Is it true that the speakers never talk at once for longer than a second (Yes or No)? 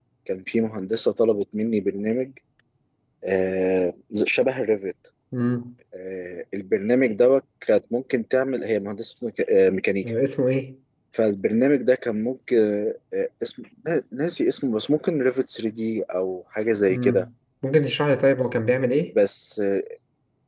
Yes